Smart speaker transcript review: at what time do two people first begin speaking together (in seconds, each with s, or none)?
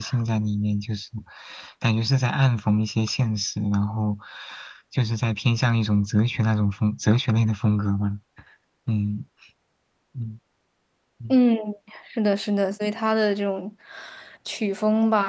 none